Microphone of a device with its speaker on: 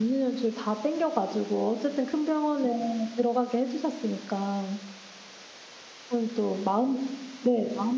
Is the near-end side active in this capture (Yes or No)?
Yes